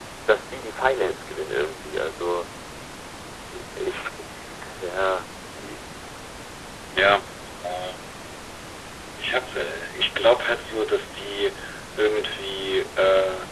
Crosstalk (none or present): none